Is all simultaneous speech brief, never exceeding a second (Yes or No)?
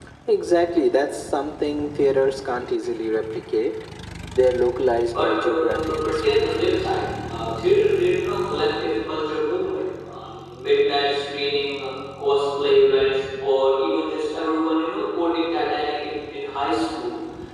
No